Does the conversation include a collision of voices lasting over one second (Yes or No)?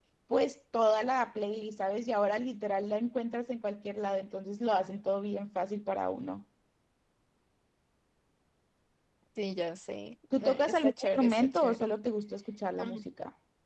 Yes